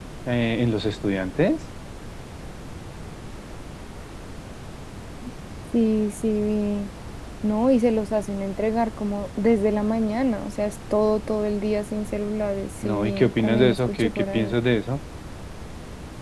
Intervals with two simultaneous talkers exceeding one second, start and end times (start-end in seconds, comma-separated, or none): 12.8-14.5